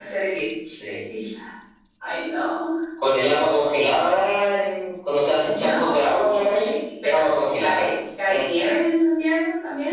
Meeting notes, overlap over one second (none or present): present